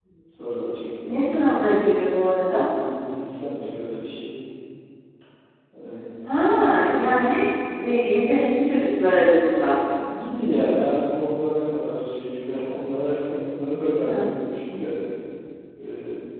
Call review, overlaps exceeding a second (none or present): none